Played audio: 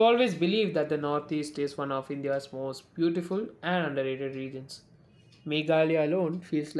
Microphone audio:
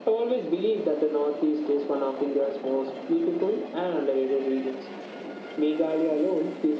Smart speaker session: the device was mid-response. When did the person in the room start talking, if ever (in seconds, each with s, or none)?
none